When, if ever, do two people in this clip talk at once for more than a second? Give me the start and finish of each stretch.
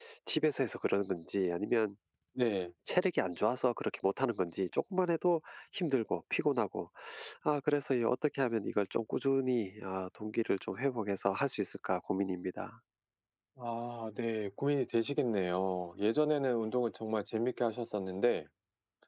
none

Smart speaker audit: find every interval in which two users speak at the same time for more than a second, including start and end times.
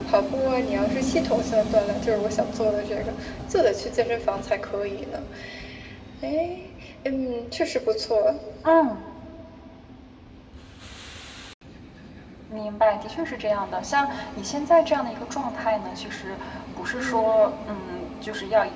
none

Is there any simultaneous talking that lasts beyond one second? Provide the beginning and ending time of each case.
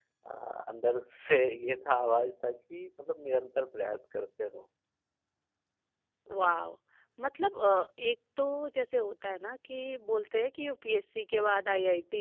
none

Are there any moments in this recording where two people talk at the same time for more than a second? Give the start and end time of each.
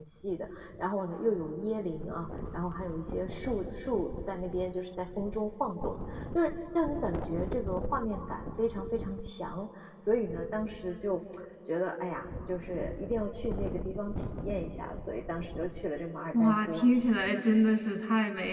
none

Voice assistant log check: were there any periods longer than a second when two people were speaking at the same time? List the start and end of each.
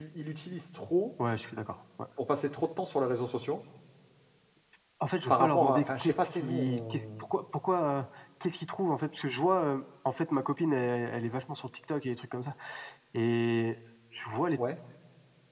5.3-7.3

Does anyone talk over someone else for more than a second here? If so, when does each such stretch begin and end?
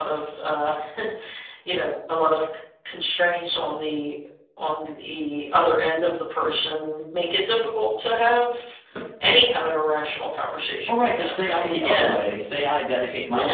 10.9-12.1

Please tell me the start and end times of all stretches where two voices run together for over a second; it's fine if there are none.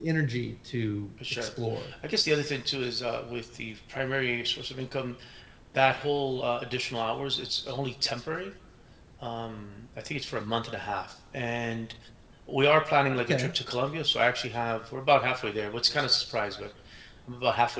none

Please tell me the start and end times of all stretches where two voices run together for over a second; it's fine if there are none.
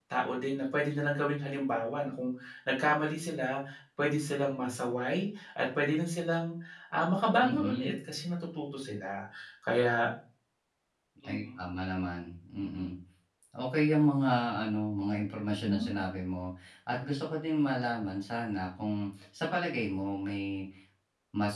none

